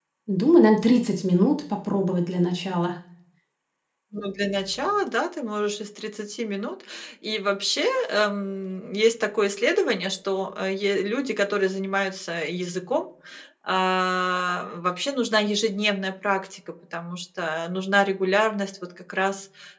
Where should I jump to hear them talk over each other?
none

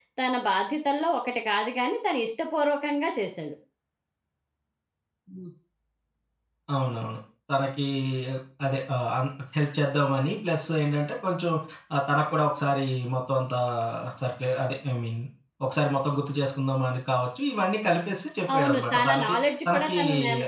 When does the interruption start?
18.5 s

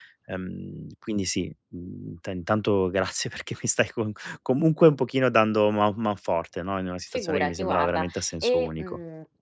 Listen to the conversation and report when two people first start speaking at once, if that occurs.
7.1 s

